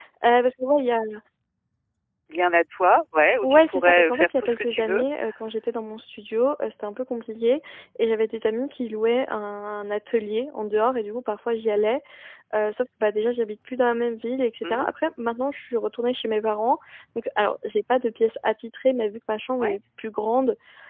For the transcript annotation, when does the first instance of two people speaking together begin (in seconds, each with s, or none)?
3.4 s